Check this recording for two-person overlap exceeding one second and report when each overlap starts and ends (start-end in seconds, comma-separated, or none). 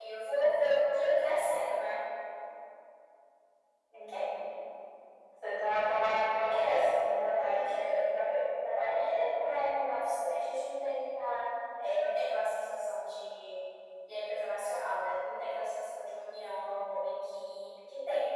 6.5-7.8